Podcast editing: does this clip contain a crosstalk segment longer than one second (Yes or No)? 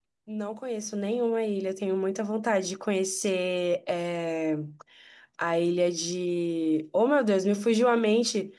No